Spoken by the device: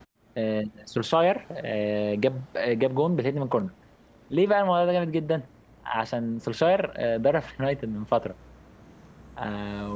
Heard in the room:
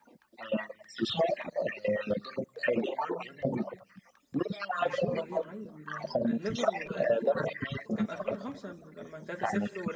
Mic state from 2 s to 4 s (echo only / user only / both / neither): echo only